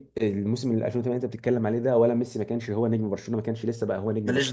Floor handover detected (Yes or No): No